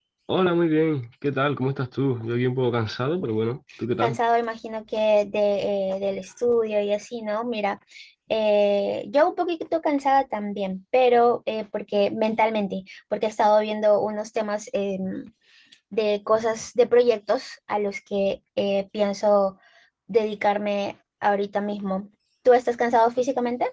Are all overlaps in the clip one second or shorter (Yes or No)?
Yes